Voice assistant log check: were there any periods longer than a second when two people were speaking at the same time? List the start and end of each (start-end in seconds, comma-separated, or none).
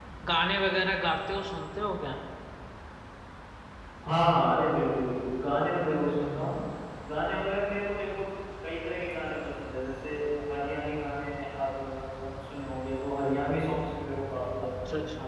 none